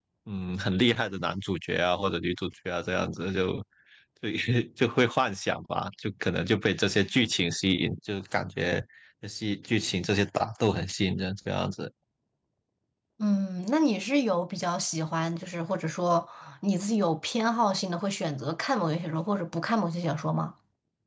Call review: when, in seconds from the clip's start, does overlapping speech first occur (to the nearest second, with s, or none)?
none